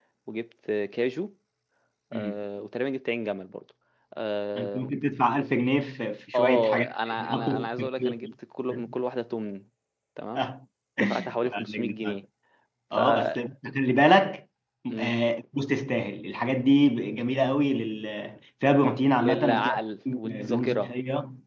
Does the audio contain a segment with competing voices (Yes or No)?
Yes